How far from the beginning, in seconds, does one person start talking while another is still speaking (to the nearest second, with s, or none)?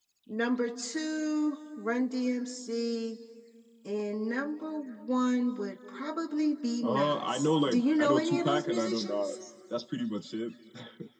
7 s